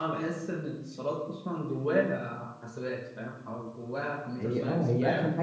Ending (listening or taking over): taking over